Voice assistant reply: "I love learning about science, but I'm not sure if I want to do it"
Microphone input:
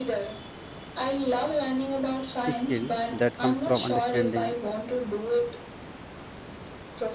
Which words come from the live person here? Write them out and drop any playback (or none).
skill that comes from understanding